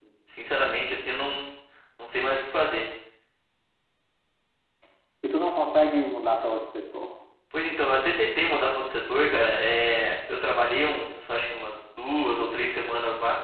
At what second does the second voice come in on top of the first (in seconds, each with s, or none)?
none